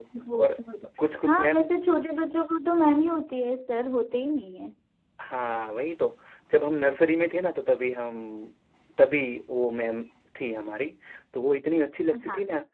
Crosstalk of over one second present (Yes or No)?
No